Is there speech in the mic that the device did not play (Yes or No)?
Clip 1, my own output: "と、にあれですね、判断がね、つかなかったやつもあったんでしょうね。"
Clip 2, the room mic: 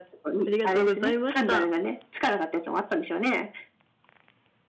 Yes